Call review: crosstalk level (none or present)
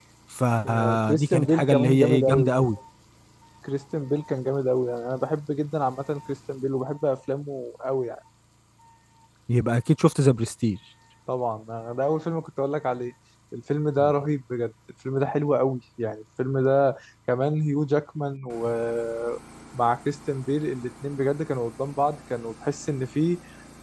present